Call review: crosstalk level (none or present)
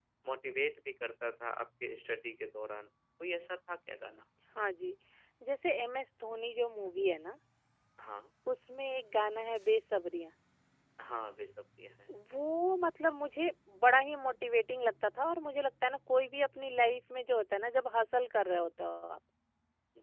none